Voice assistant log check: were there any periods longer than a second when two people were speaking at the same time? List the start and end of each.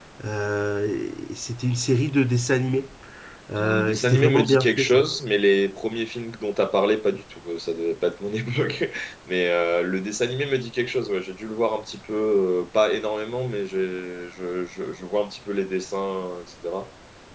3.6-5.0

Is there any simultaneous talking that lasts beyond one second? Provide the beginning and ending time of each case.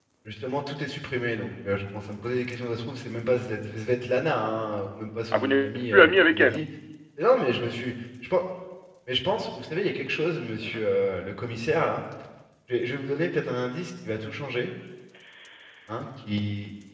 5.3-6.6

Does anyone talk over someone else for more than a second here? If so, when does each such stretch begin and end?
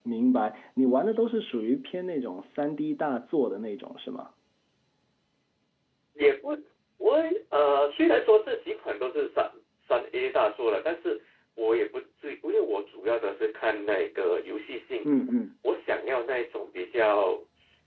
none

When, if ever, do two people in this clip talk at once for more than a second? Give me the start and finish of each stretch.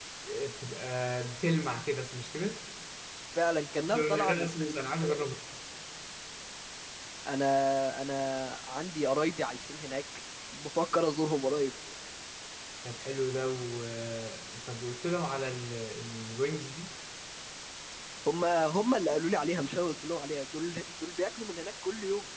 3.9-5.2

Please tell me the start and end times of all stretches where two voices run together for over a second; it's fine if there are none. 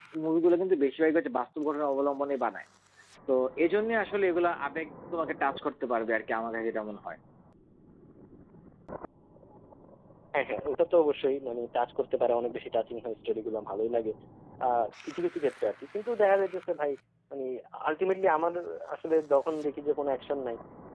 none

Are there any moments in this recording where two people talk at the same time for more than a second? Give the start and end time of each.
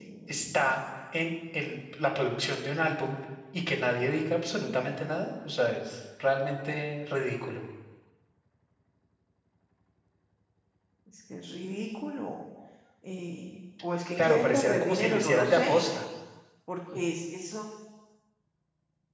14.2-15.8

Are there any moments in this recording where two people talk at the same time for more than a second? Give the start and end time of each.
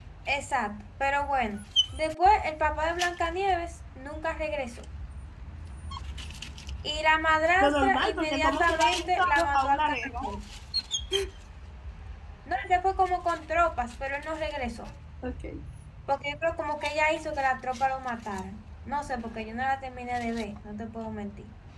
7.6-10.0

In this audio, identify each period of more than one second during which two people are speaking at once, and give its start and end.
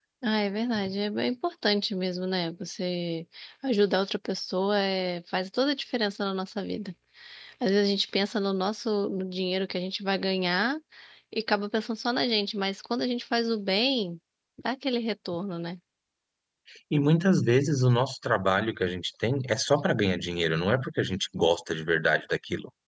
none

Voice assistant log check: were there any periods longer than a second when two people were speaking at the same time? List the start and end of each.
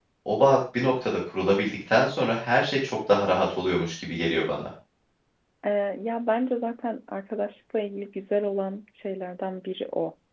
none

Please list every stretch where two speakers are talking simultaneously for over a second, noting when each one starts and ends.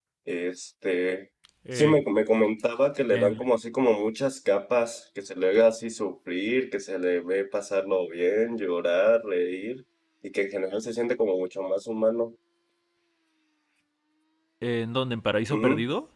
none

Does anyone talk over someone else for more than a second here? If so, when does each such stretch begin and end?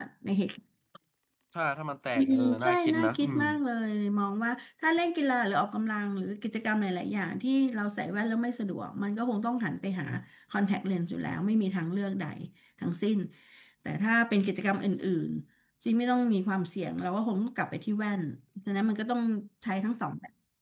2.1-3.4

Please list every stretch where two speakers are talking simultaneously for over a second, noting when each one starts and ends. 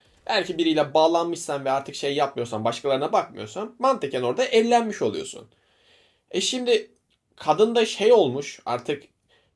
none

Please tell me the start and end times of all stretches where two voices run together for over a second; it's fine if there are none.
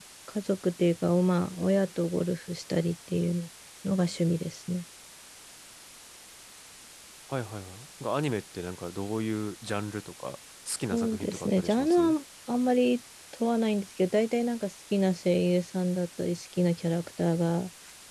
10.9-12.2

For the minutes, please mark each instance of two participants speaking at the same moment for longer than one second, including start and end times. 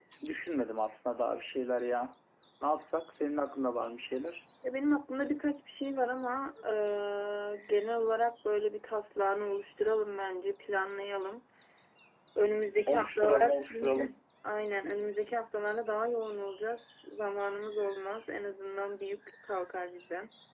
12.9-14.1

